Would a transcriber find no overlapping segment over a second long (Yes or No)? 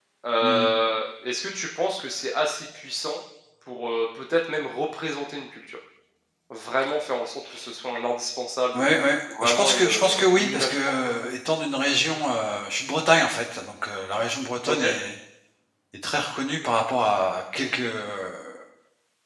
No